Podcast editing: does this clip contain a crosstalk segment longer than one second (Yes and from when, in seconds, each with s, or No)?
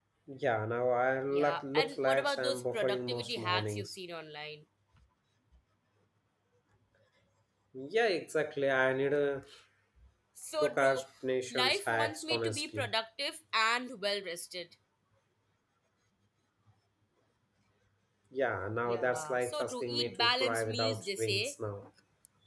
Yes, from 1.3 s